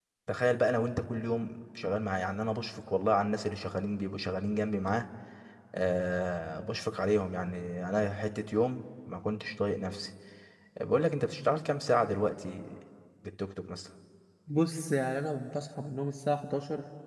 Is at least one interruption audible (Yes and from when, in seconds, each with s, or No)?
No